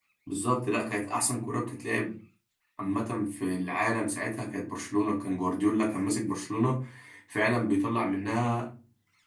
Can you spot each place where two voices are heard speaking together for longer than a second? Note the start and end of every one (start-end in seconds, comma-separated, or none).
none